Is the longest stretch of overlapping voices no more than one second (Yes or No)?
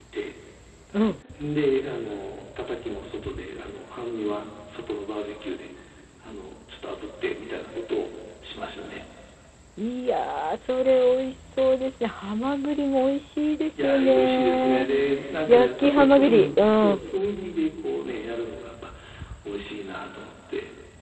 No